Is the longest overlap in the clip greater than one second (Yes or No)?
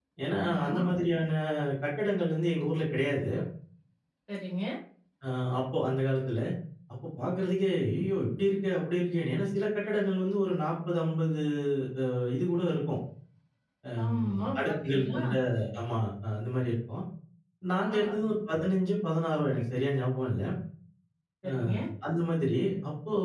Yes